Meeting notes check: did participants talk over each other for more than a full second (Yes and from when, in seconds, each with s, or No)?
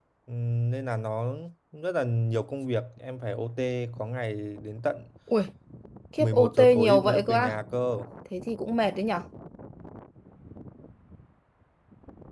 Yes, from 6.2 s